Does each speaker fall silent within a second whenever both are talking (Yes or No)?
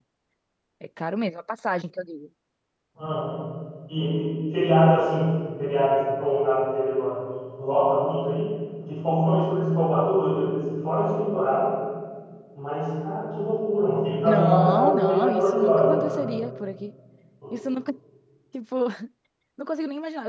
No